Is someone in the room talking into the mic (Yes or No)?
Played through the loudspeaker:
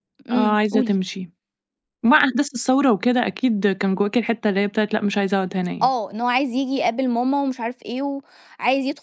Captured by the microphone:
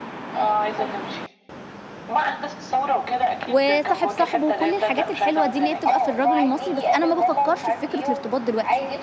Yes